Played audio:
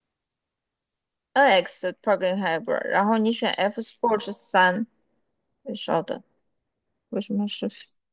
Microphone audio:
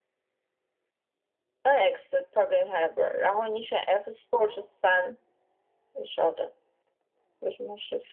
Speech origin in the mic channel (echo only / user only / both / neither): echo only